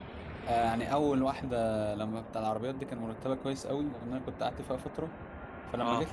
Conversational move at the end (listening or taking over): listening